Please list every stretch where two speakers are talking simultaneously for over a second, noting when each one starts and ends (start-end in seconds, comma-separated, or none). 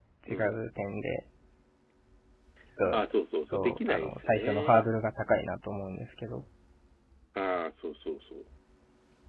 3.4-4.9